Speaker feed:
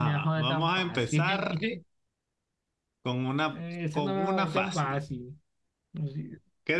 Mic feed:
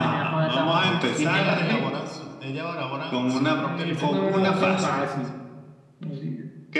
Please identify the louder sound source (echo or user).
echo